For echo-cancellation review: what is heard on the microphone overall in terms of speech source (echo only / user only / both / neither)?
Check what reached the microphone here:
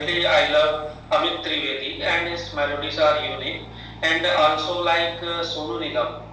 echo only